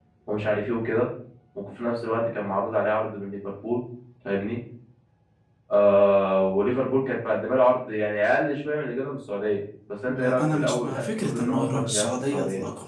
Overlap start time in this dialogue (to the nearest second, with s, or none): 10 s